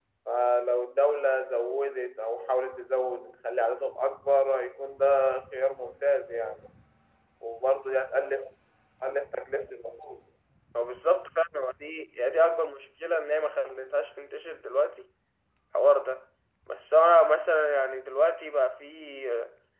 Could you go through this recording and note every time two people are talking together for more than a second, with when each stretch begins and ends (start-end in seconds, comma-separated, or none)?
none